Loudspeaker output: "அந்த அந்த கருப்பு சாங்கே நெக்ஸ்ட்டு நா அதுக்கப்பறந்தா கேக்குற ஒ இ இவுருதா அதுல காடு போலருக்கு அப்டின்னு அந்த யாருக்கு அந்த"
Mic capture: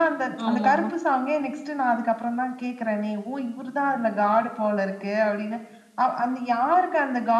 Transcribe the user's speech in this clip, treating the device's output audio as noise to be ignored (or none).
ஆமாமா.